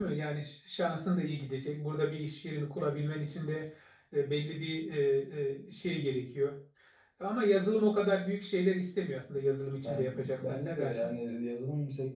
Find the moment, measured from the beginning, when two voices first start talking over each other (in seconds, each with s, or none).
9.8 s